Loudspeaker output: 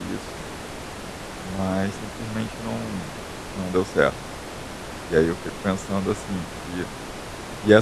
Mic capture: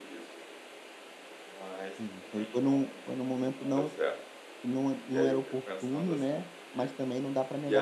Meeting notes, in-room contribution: present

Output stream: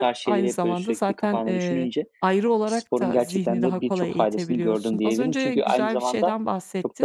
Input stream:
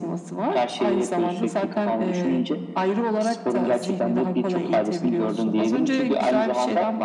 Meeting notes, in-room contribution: none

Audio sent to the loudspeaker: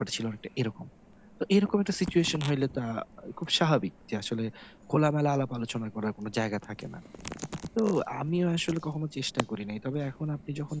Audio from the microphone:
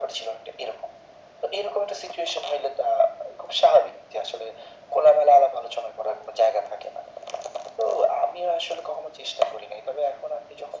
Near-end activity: none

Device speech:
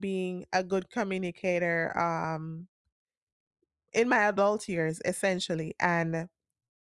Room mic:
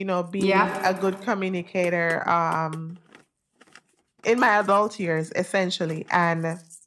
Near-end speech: present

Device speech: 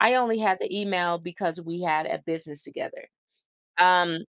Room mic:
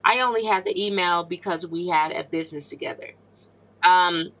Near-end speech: none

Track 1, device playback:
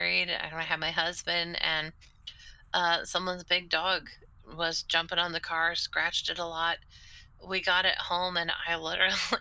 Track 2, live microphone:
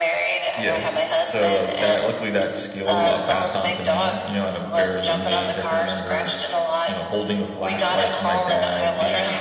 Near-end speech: present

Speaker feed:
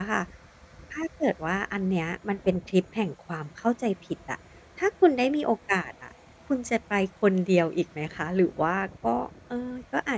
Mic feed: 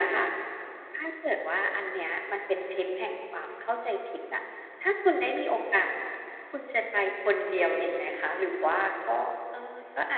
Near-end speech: none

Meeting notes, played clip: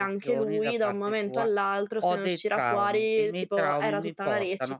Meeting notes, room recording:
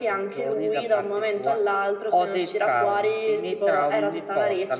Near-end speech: none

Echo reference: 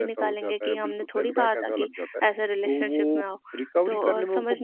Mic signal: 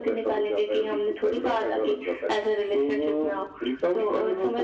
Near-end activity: none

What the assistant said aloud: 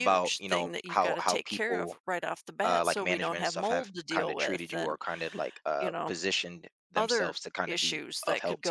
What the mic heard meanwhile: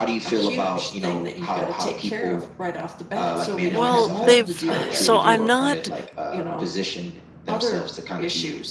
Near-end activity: present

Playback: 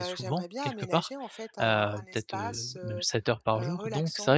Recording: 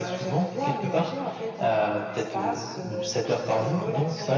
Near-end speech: present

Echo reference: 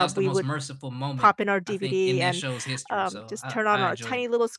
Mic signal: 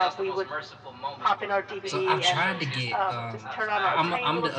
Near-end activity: present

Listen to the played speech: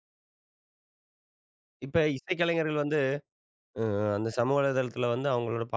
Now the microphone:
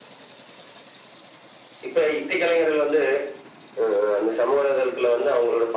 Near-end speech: none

